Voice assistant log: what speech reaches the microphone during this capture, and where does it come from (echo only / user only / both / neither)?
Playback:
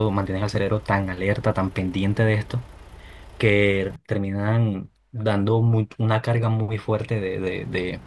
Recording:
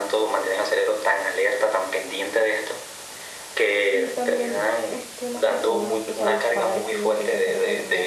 both